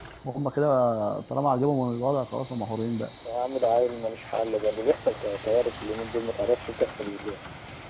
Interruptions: none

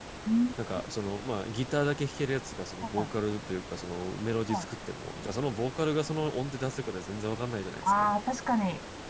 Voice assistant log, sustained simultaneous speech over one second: none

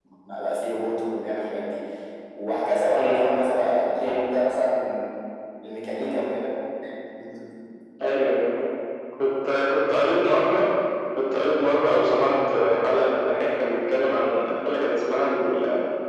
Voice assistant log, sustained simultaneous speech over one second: none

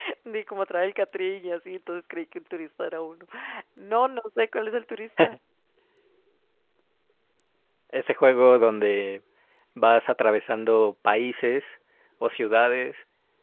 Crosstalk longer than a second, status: none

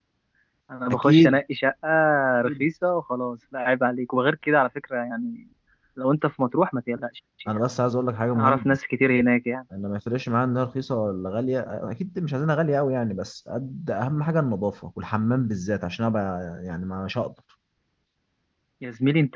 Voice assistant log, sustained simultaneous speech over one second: none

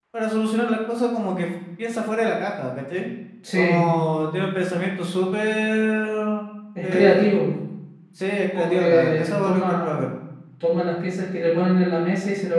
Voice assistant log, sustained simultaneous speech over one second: present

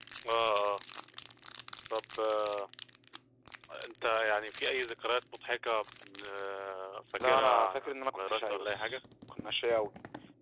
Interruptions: present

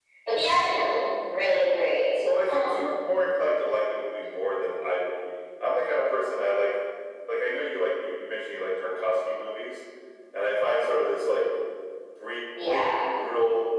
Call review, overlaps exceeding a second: none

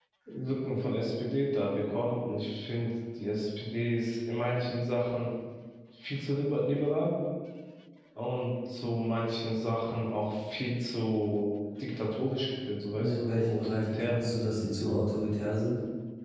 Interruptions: present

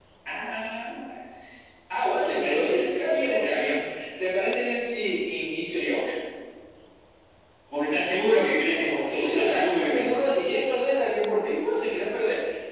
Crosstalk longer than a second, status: present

